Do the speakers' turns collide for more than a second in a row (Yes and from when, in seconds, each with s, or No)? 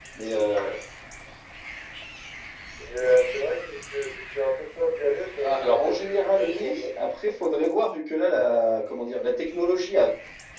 Yes, from 5.4 s